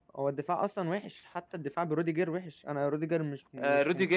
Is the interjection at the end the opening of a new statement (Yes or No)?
Yes